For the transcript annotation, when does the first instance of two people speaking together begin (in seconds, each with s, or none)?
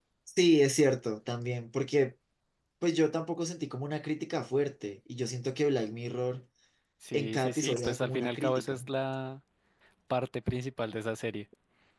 7.1 s